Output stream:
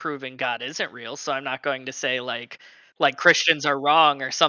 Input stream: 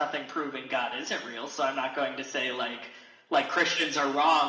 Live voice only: none

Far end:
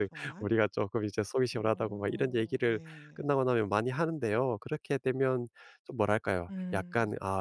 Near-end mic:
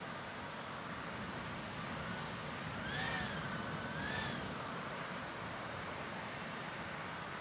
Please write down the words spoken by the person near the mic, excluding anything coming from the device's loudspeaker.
none

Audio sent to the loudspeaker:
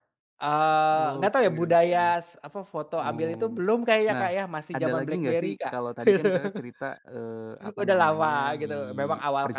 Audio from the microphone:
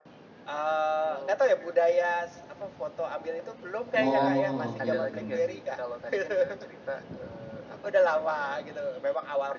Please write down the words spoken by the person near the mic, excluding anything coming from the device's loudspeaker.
Oh, oke oke.

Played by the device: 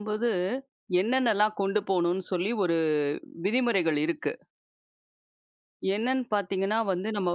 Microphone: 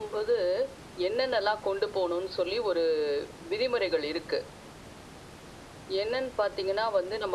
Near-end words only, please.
none

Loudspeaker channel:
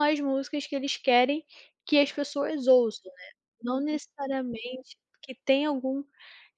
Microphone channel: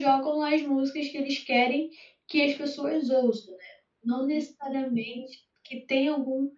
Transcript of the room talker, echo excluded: none

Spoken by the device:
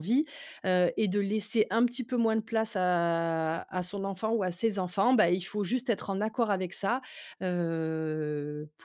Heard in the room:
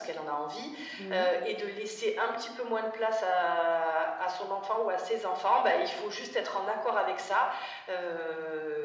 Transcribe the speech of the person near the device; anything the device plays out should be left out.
Oui,

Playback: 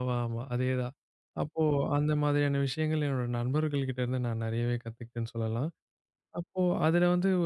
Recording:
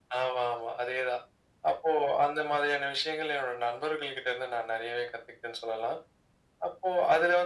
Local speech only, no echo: none

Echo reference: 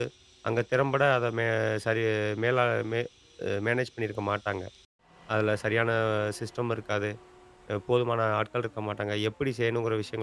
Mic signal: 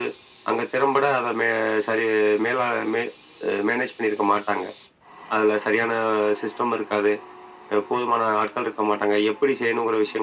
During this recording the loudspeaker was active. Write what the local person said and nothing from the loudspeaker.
none

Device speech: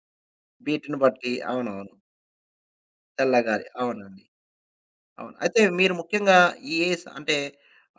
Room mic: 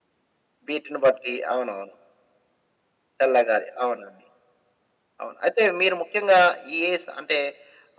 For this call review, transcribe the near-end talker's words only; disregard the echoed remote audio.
none

